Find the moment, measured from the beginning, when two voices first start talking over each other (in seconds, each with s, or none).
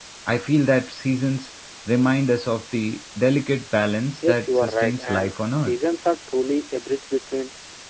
4.2 s